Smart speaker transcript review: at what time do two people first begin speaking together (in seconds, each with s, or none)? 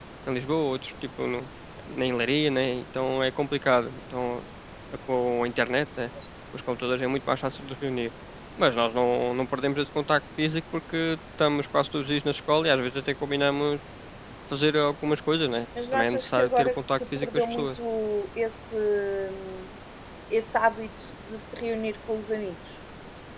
15.8 s